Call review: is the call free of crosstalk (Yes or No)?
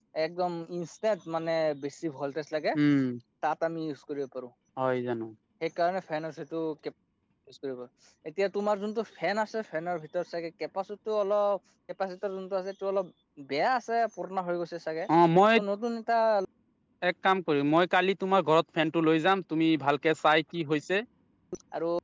Yes